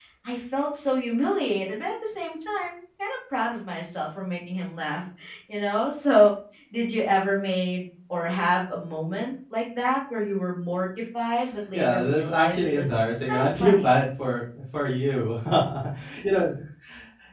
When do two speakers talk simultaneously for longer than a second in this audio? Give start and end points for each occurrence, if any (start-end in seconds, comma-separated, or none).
11.7-13.8